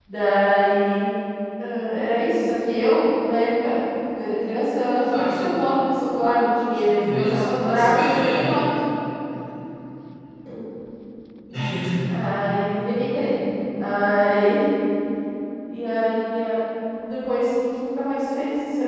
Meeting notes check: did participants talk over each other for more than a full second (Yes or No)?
Yes